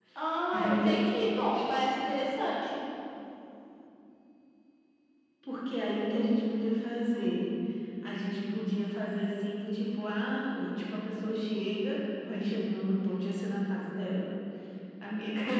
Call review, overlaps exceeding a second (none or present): none